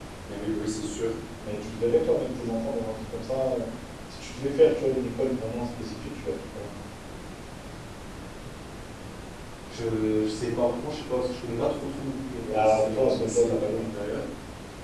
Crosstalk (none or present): present